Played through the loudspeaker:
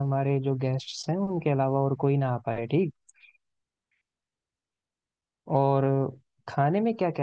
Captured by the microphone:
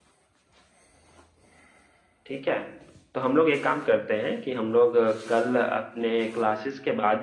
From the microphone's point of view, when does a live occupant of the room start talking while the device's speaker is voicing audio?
2 s

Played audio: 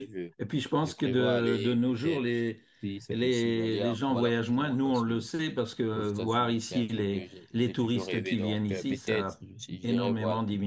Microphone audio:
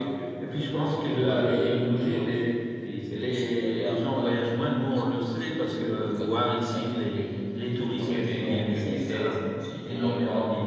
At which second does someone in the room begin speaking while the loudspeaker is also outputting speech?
none

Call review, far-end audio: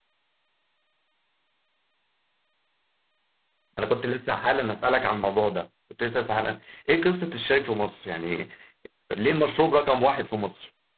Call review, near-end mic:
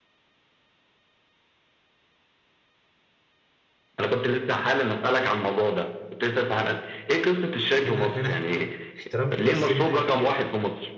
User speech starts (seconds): 8 s

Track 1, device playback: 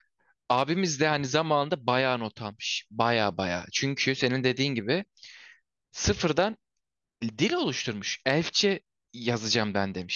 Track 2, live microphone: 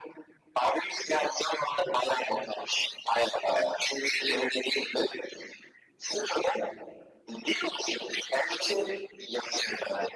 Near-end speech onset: none

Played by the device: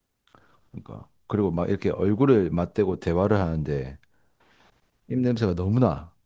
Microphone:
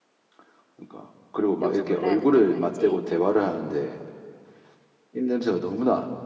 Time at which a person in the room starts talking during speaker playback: 2 s

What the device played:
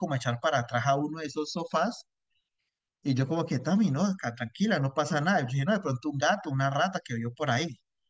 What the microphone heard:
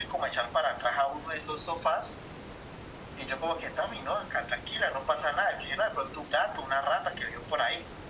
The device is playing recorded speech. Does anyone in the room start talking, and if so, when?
none

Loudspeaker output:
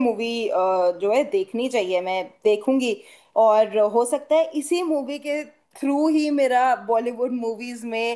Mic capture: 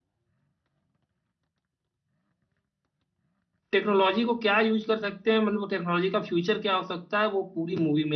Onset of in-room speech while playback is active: 4 s

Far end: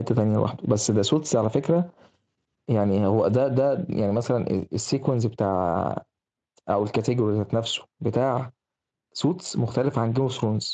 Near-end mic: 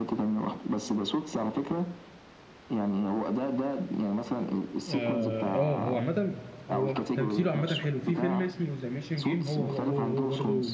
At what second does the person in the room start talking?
5 s

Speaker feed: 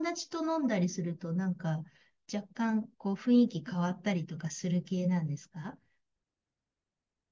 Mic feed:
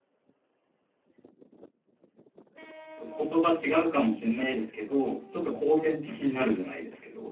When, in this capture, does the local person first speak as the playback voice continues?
3 s

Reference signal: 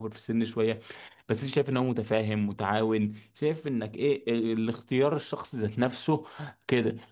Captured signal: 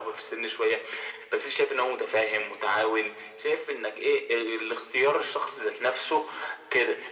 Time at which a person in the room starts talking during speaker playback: none

